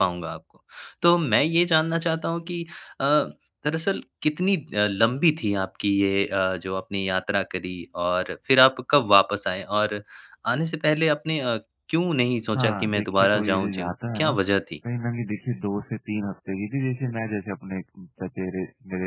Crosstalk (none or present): present